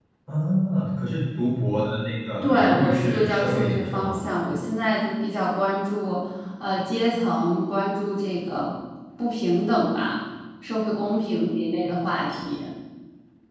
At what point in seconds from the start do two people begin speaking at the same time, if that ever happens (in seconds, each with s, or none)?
2.4 s